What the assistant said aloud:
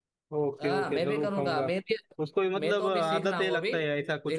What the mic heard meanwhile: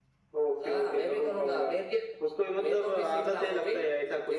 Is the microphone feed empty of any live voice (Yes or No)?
Yes